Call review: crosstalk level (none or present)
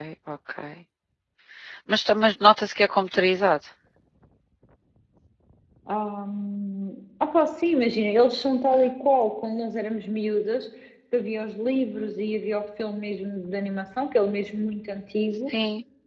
none